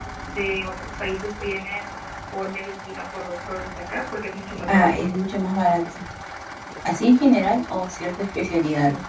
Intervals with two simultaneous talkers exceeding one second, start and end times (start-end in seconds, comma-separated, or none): none